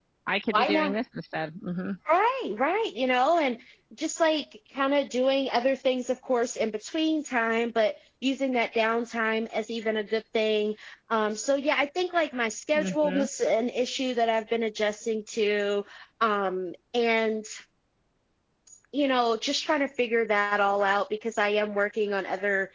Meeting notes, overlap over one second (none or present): none